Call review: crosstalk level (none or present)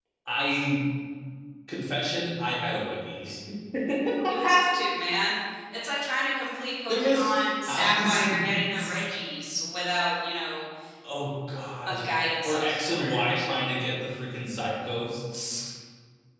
present